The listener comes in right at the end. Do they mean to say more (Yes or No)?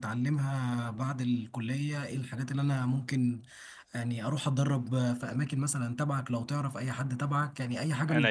No